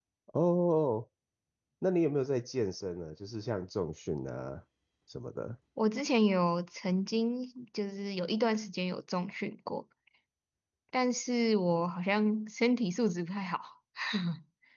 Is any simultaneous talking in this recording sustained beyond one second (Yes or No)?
No